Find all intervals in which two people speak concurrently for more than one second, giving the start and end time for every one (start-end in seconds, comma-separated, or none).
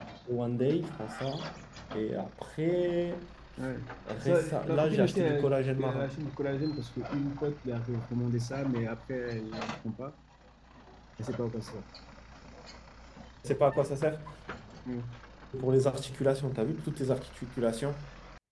4.2-6.1